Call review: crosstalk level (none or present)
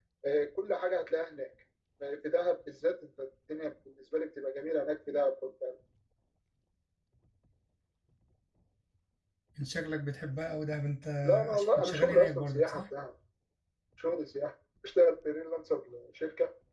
present